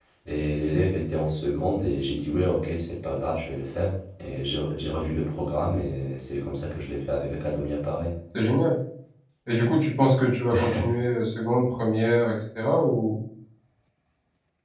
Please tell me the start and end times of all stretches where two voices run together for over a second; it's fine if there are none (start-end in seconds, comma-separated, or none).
none